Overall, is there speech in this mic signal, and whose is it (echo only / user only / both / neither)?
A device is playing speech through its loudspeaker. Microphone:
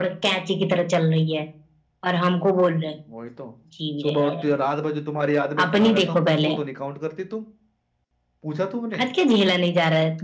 echo only